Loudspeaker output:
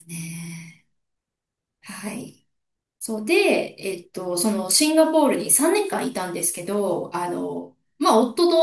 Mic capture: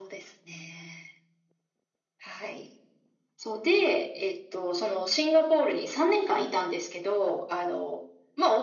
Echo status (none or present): present